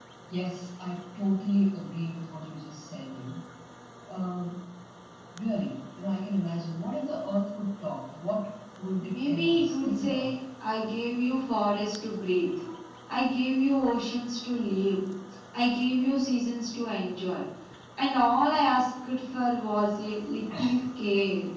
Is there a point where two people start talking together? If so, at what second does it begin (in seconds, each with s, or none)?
9.0 s